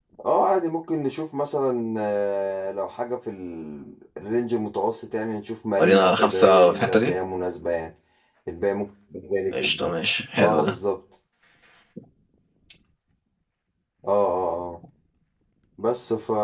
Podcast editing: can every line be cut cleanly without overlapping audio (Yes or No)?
No